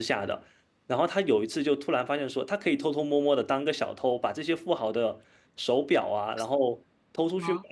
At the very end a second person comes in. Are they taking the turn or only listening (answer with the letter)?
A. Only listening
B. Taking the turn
A